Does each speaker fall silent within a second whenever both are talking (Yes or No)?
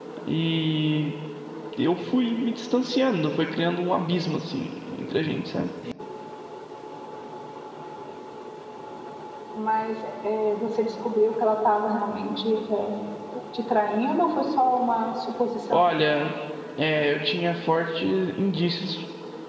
Yes